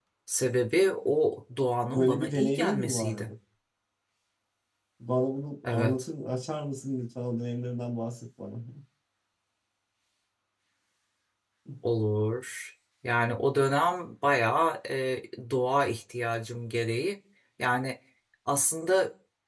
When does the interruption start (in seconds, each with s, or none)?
1.8 s